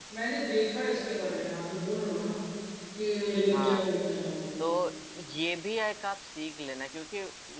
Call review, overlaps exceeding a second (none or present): none